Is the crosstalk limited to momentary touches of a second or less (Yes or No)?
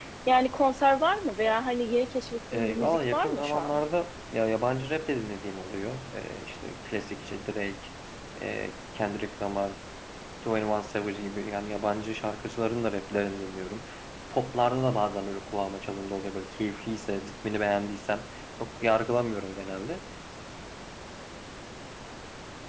No